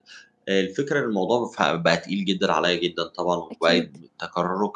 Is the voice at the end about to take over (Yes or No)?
No